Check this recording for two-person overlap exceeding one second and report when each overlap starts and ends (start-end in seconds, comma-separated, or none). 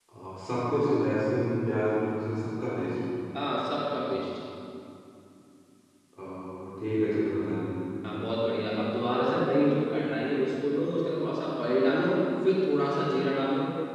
none